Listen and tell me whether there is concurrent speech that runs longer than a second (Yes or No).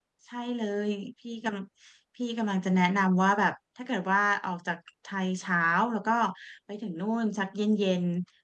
No